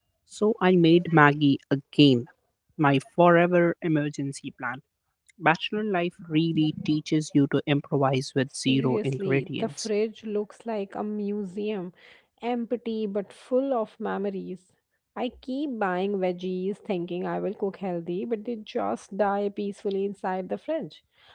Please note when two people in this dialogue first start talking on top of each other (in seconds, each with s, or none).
8.7 s